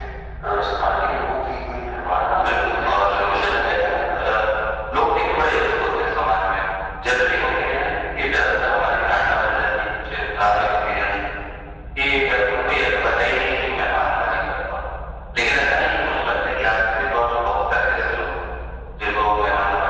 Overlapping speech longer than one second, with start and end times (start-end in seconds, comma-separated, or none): 2.3-4.2